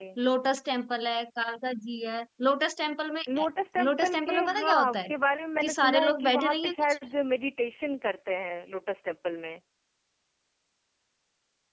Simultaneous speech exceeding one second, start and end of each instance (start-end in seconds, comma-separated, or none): 3.8-5.1, 5.6-6.8